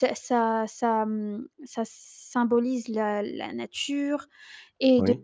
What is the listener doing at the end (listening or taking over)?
listening